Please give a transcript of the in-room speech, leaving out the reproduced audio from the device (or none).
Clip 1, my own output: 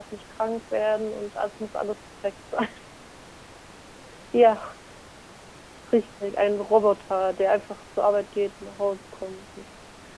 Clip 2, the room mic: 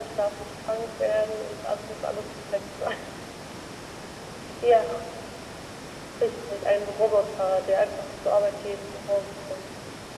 none